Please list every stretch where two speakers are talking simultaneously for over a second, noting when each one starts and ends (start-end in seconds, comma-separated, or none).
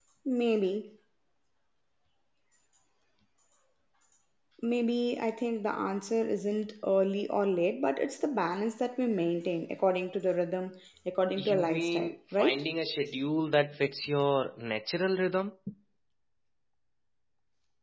11.4-12.6